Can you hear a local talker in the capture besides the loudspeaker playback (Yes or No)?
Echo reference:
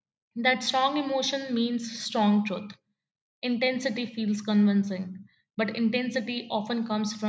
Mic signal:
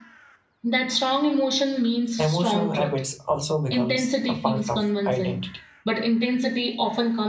Yes